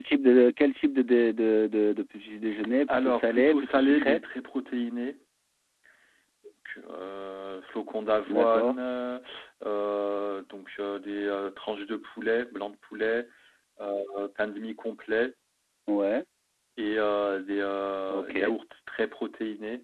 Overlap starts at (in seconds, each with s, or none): 3.0 s